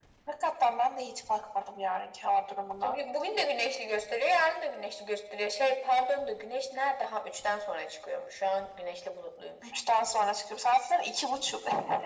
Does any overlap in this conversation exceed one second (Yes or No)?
No